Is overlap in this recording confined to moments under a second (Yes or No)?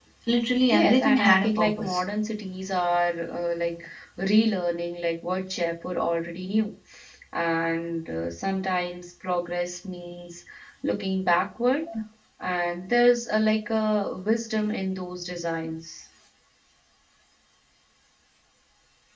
No